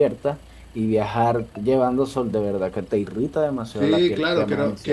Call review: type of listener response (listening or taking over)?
taking over